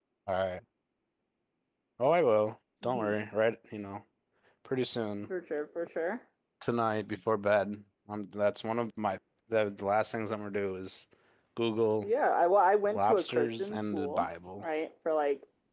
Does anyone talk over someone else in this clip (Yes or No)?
Yes